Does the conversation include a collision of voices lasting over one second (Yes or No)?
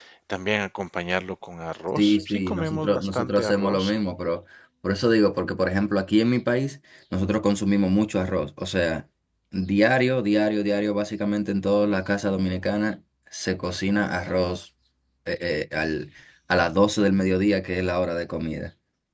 Yes